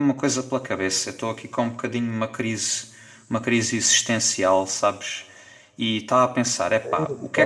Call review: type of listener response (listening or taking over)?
listening